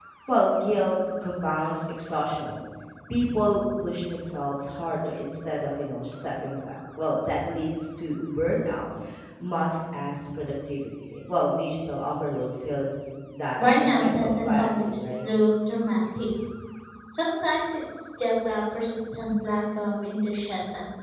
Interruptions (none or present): present